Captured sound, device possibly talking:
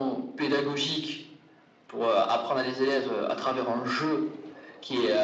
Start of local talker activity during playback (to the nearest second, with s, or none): none